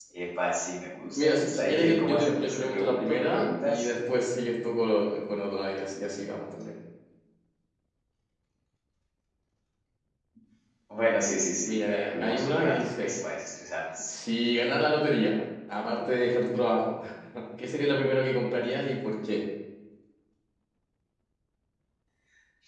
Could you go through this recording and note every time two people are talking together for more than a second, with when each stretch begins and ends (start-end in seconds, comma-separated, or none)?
1.1-3.9, 11.6-13.2